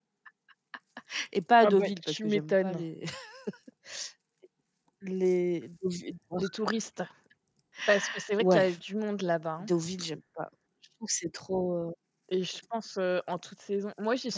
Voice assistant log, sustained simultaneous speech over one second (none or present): present